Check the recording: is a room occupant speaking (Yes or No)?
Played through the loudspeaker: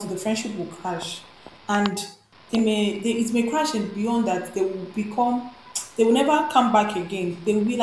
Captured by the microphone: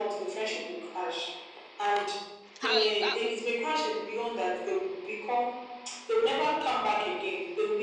Yes